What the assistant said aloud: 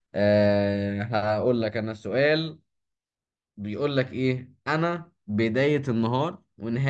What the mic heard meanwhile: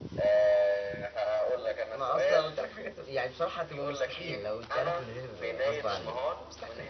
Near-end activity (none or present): present